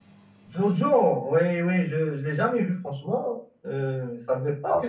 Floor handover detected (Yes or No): Yes